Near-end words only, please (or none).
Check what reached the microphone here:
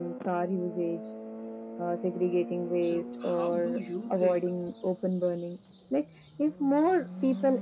so, how do you think